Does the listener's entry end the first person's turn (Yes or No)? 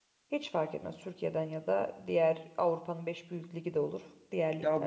Yes